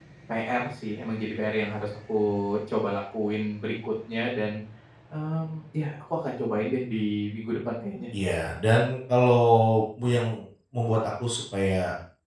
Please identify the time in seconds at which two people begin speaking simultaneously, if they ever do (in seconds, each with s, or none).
none